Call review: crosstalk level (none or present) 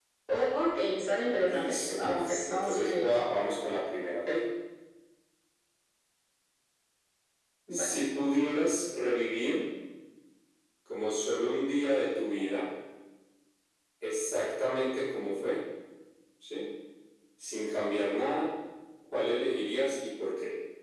present